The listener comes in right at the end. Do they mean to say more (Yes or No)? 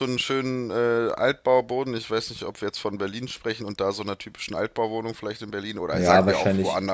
Yes